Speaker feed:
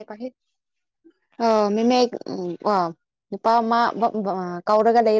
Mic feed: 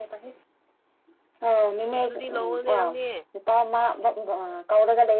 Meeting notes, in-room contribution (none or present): present